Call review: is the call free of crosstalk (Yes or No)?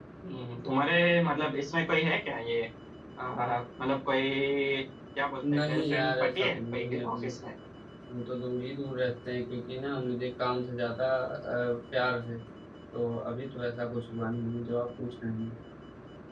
No